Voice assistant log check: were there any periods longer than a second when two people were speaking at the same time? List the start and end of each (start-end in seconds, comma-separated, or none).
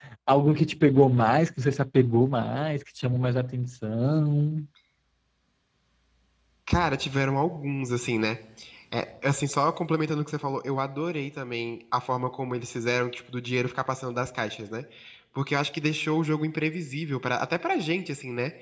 none